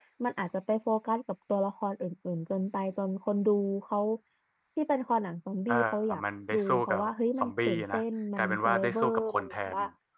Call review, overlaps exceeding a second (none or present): present